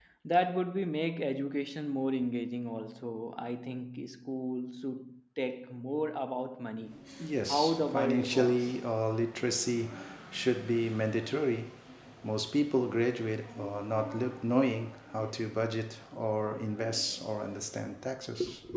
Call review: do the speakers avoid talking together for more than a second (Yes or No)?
No